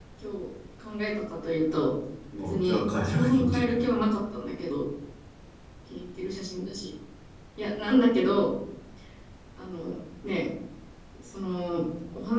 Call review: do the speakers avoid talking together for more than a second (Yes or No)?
No